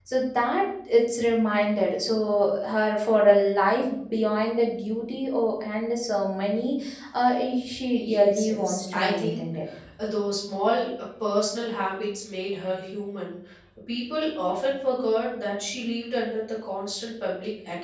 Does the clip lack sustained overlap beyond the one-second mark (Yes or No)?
No